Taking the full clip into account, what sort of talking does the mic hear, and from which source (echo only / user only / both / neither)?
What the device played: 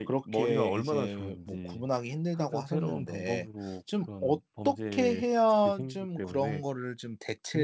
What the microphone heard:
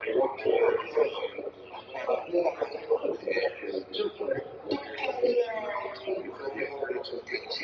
echo only